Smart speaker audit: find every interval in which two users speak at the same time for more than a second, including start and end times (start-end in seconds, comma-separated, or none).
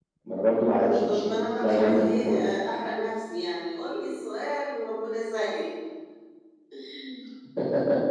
0.7-2.4